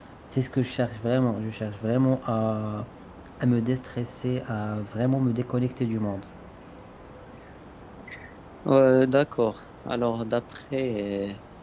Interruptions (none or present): none